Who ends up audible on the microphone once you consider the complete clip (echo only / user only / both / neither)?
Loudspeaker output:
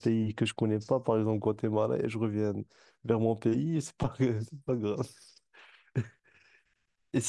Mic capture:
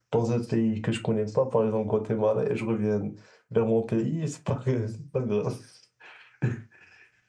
echo only